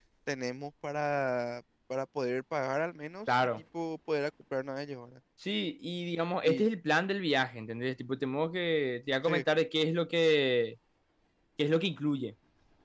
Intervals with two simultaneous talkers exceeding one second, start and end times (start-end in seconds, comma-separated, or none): none